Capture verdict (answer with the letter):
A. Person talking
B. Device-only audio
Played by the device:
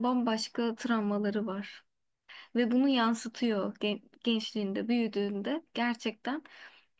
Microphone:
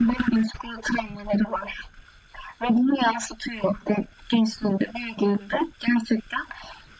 B